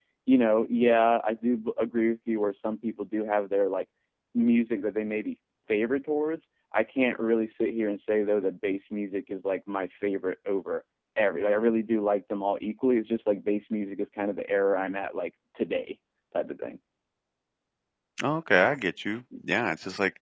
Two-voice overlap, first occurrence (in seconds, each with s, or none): none